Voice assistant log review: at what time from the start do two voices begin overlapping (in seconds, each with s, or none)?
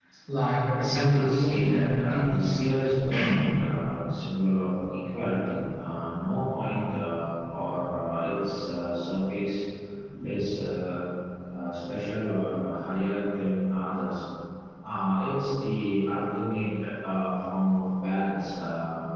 0.8 s